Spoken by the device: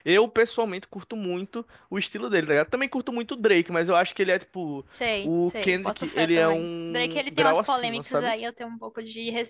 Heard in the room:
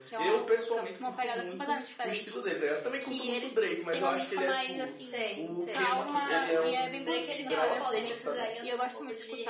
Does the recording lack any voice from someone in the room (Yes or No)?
No